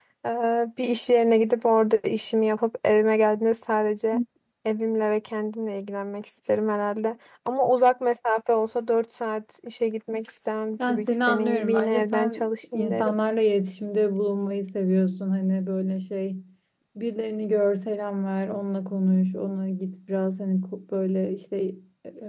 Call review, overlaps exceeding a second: present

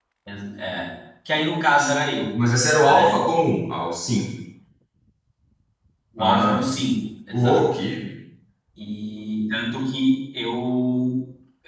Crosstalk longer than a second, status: none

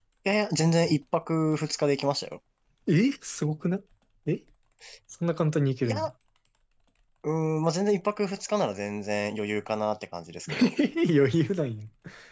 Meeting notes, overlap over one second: none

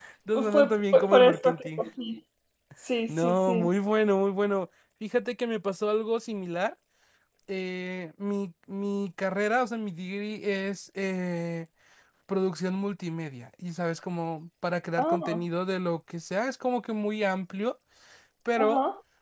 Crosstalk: present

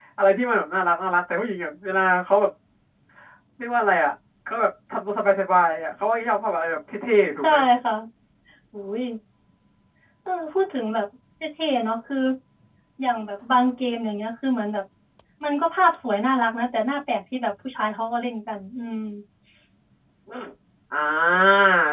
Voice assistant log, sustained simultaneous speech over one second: none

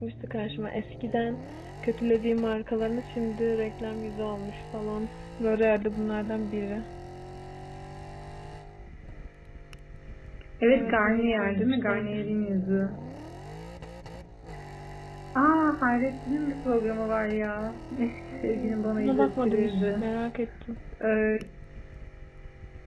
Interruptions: present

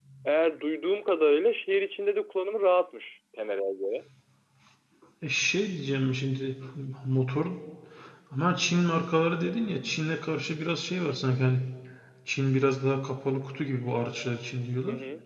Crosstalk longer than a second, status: none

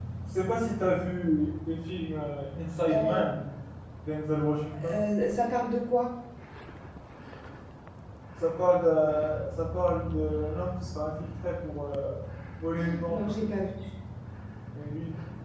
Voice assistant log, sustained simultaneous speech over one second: none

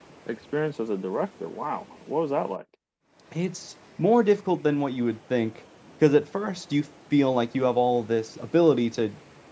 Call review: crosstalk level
none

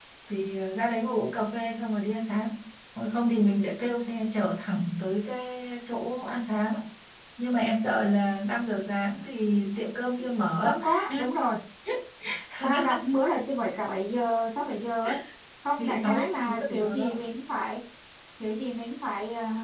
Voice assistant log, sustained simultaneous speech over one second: present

